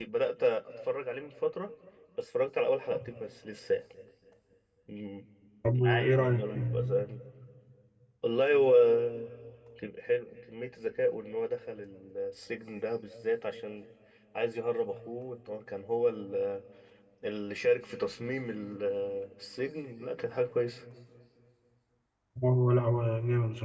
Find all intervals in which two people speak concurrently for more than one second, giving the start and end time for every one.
5.8-7.0

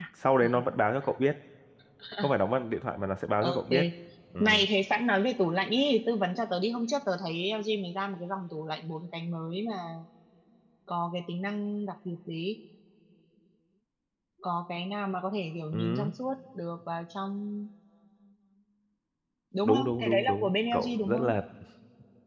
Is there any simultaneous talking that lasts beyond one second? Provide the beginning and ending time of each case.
19.6-21.3

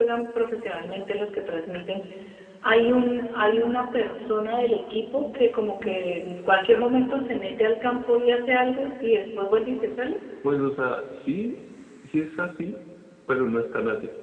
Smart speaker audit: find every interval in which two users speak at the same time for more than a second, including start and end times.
none

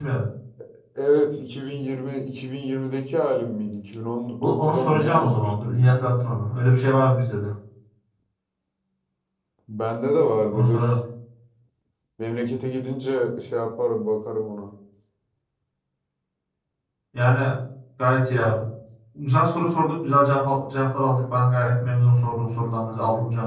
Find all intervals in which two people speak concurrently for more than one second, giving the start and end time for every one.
4.4-5.8

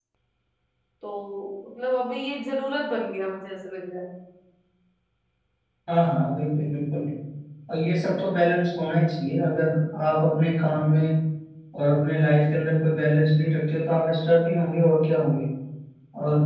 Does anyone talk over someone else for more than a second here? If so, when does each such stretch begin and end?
none

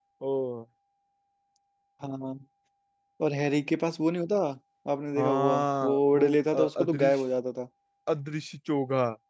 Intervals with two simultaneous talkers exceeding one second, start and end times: 5.2-7.2

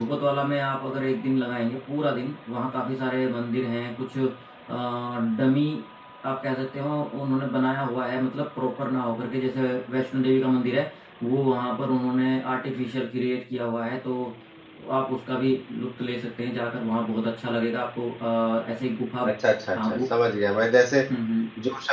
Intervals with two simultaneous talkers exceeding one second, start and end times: none

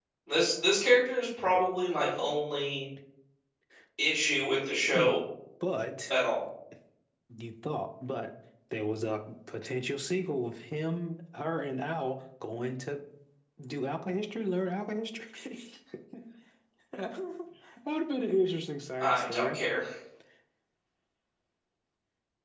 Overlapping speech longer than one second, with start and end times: none

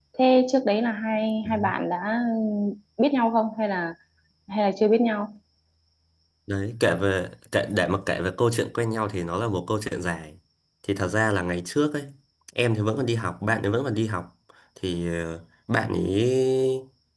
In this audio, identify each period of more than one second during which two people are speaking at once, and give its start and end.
none

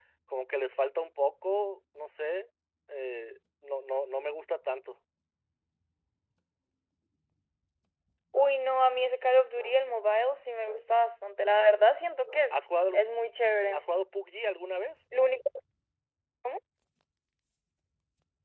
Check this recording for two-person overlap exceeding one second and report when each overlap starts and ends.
none

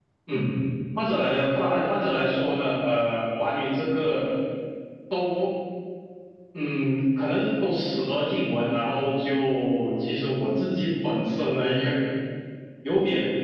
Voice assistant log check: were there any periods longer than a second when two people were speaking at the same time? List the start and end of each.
none

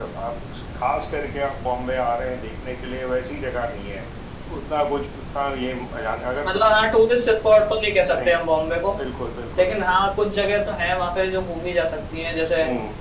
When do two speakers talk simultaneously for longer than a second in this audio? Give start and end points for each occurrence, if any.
none

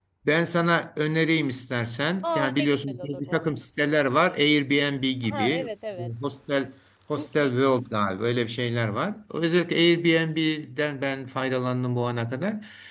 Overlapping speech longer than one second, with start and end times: 2.2-3.4

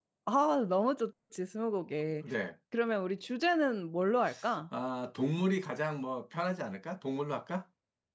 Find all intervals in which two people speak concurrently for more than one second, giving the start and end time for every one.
none

